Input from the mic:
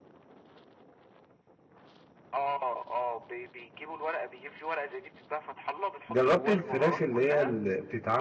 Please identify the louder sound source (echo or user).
user